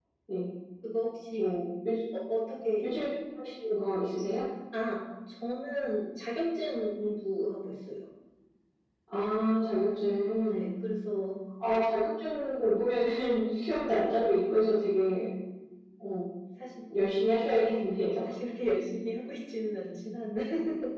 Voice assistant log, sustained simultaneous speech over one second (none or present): none